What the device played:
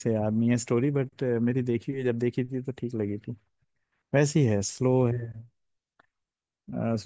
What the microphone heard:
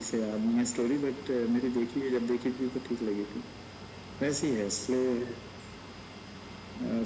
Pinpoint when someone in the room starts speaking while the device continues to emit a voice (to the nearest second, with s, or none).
none